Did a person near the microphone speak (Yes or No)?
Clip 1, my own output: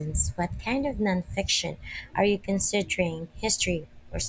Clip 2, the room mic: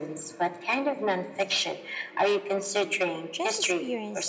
Yes